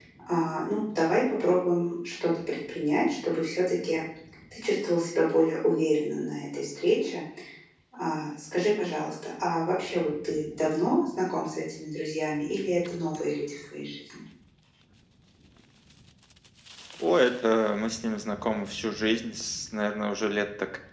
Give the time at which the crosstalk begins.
none

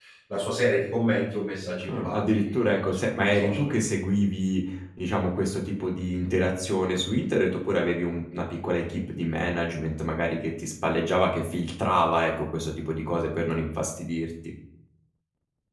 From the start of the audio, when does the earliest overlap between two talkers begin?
1.9 s

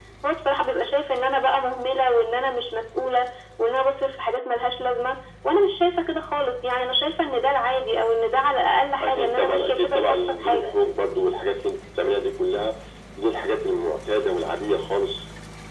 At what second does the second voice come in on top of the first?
9.0 s

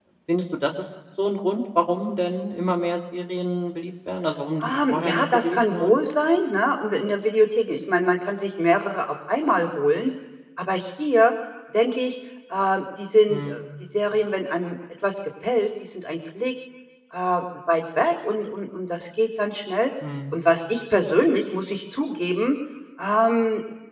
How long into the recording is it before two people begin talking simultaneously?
4.6 s

